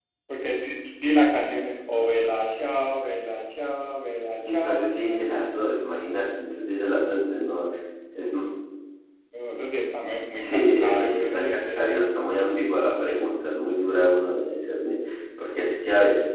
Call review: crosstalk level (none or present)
present